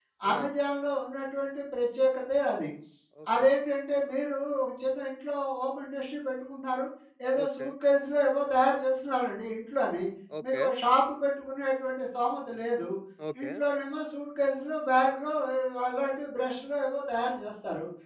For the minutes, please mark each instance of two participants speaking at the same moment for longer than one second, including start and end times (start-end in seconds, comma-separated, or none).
none